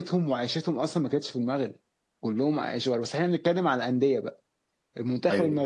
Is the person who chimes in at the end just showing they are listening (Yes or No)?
Yes